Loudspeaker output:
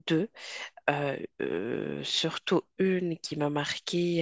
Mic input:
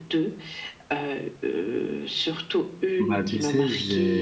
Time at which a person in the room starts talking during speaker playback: 3.0 s

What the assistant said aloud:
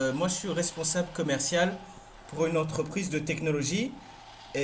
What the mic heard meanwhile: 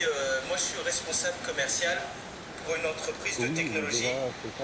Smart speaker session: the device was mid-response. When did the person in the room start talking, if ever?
3.4 s

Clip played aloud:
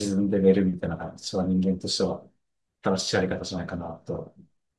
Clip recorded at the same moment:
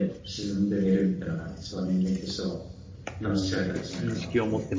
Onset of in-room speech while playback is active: 3.2 s

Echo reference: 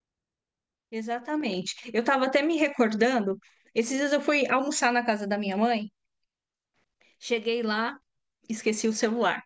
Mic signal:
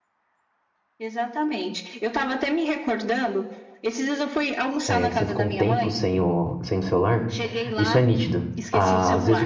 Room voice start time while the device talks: 4.9 s

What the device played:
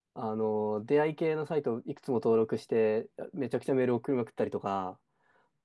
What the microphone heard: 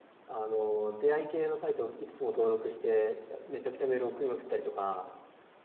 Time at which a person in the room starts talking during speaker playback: none

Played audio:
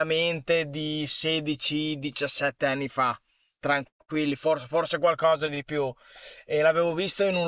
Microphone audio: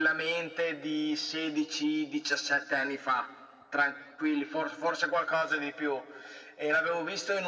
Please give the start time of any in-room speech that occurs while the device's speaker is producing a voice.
none

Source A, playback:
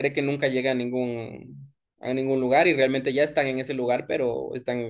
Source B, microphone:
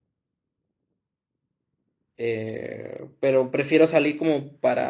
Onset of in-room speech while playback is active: 2.2 s

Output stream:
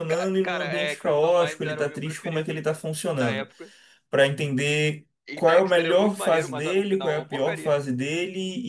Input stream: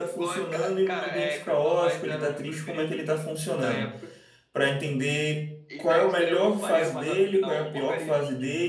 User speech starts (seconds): none

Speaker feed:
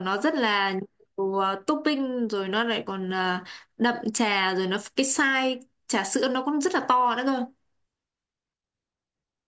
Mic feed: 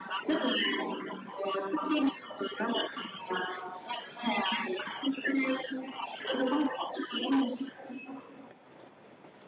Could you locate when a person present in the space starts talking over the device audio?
none

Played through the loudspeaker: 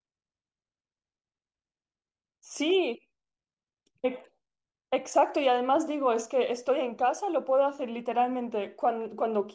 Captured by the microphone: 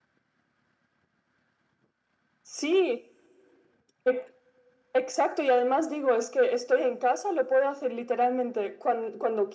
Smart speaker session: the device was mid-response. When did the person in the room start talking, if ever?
none

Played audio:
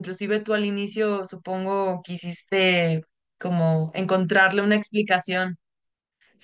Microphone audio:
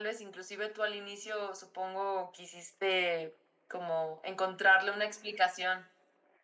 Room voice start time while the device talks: none

